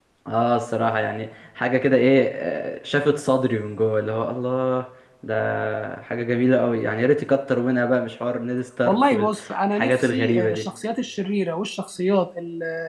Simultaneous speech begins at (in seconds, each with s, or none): 8.9 s